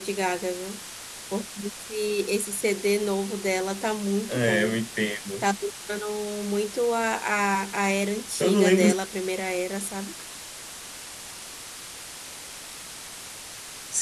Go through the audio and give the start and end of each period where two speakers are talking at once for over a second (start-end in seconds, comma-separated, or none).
none